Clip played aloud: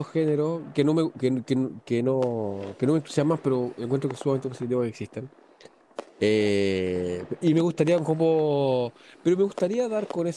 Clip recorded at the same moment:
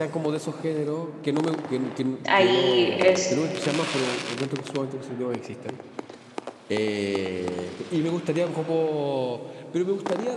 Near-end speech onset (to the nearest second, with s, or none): 2 s